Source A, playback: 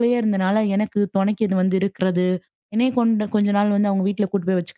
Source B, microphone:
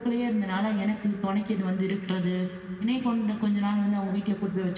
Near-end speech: none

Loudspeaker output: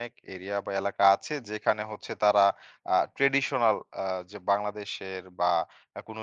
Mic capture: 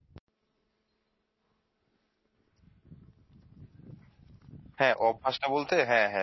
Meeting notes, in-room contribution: present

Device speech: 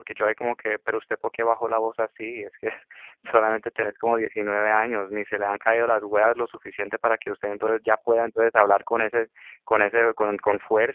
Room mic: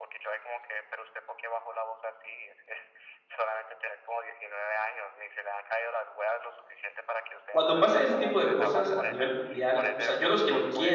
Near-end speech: present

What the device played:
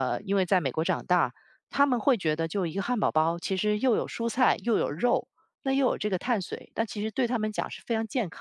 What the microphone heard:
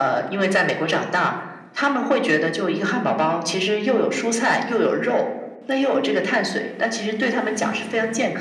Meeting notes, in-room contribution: none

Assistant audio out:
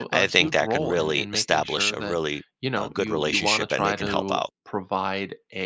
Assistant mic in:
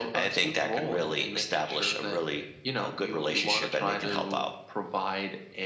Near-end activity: none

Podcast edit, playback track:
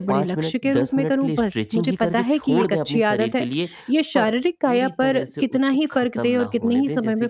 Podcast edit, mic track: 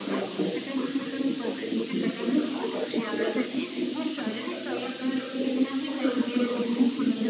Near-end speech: none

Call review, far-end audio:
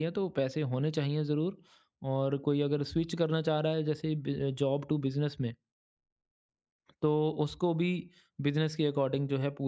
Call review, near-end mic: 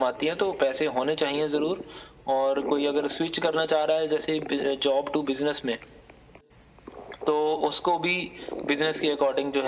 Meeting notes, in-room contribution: none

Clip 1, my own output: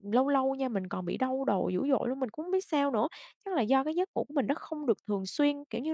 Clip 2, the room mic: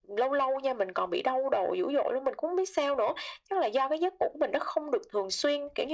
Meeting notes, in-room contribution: none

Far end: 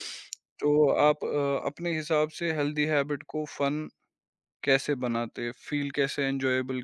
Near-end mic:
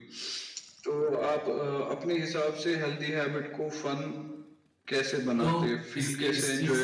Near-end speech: present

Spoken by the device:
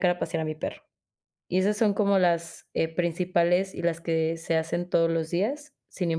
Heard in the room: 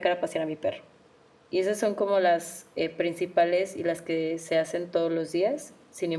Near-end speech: none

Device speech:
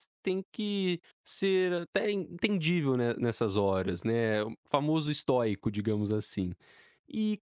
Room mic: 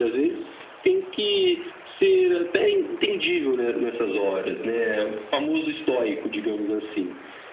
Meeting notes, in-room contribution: none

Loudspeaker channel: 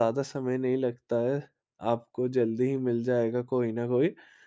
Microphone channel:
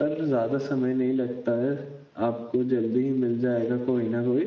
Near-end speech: none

